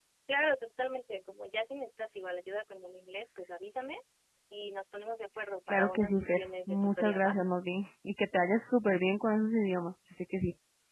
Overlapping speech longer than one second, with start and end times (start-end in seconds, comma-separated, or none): 5.7-7.4